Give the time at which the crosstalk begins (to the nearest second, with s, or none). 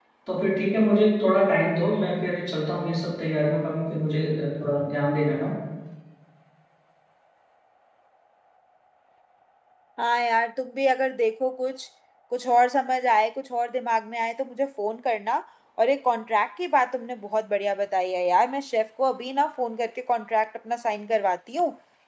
none